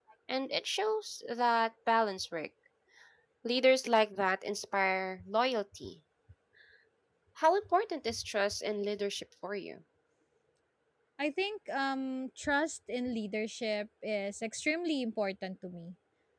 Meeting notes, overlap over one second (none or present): none